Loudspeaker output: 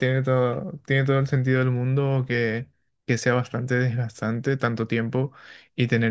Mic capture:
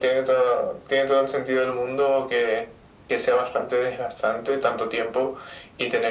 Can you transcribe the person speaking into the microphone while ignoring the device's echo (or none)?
none